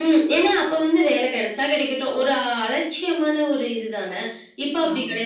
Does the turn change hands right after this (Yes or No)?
No